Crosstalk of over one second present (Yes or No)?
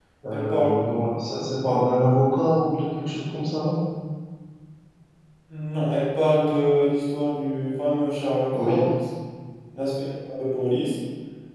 No